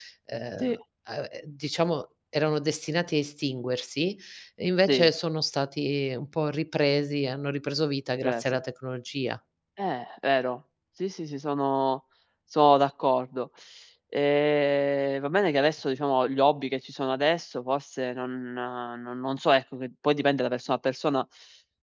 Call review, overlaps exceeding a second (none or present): none